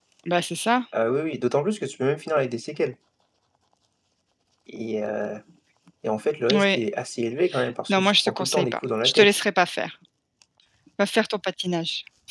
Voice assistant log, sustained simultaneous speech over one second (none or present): present